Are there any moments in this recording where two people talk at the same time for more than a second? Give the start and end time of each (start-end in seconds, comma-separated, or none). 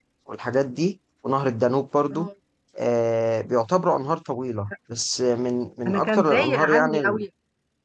5.8-7.2